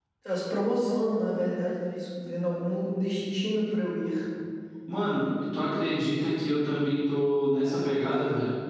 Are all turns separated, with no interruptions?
Yes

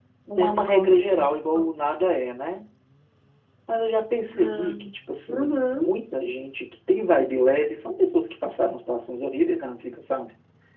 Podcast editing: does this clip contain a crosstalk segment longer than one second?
Yes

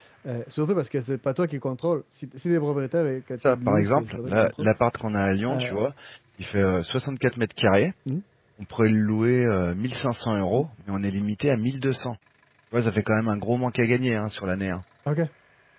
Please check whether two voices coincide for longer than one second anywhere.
Yes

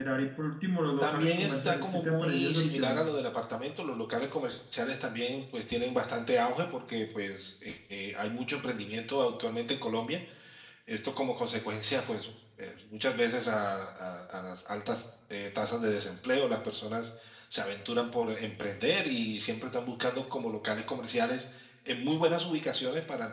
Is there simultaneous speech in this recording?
Yes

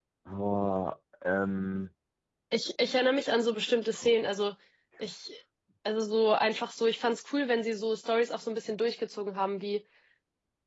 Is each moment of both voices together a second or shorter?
Yes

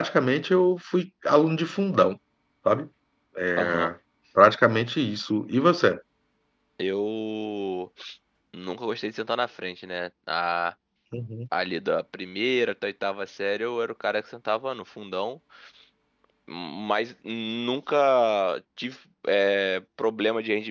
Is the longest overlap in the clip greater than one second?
No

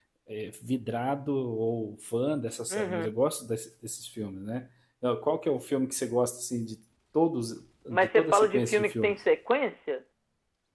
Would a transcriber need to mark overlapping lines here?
Yes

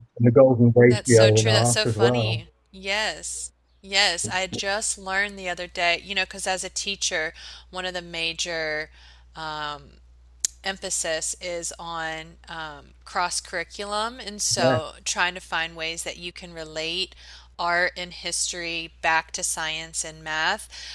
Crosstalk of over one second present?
Yes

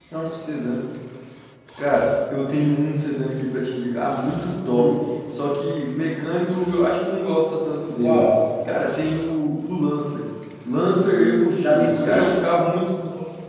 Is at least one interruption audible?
Yes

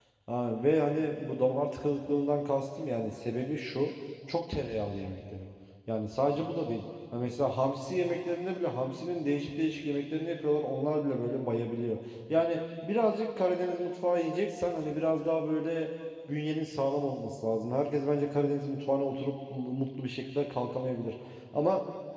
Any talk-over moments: No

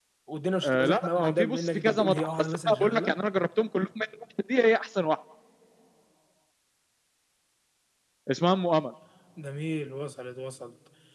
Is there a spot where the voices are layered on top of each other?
Yes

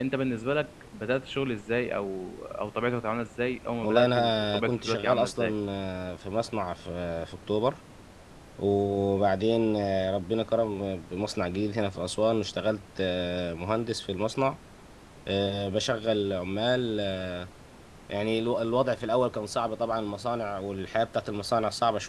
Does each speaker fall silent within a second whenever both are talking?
No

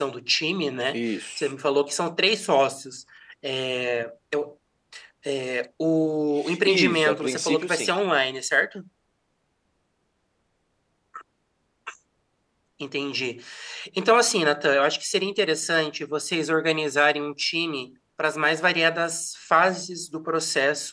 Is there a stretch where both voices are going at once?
Yes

